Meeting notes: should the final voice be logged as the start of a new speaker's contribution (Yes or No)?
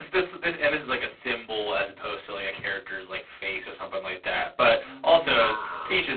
No